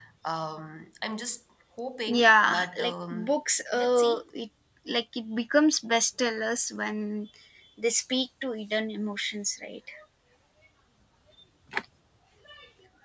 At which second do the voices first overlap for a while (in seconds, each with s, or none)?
2.1 s